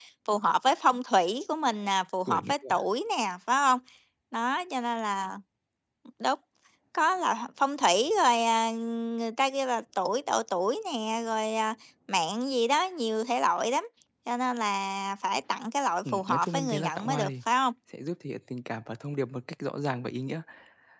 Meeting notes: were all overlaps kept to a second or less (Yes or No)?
No